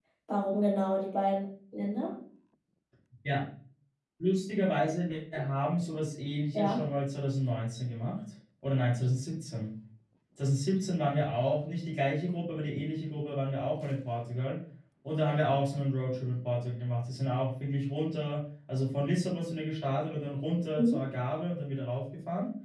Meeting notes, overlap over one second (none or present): none